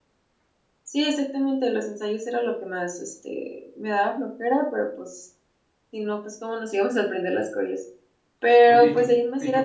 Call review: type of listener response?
taking over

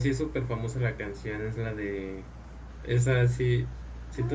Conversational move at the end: taking over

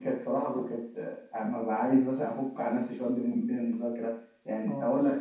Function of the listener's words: listening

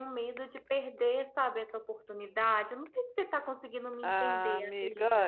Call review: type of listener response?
taking over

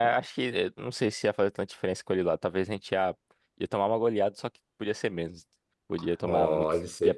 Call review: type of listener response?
taking over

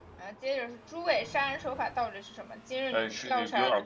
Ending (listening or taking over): taking over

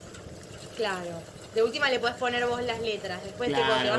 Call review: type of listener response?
taking over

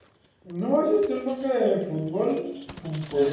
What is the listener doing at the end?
listening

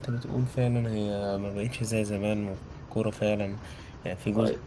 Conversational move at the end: listening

